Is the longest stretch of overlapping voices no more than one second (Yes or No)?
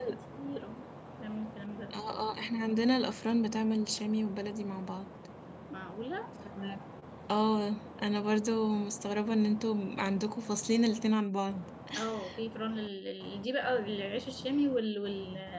Yes